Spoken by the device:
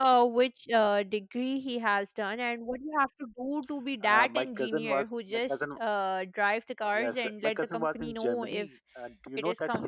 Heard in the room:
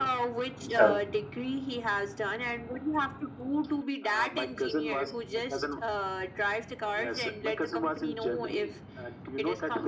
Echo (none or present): present